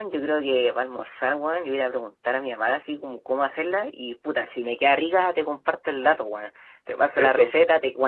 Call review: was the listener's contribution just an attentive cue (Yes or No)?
Yes